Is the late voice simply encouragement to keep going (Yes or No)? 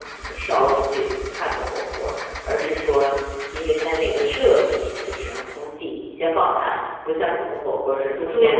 No